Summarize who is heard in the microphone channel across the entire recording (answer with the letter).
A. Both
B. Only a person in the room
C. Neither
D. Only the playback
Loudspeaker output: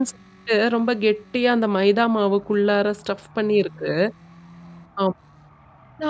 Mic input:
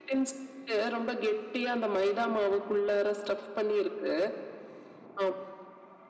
D